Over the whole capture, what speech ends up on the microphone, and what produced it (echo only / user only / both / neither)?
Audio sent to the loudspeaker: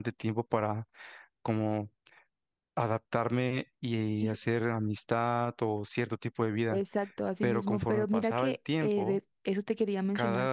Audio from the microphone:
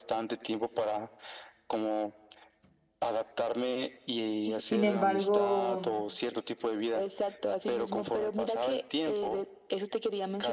both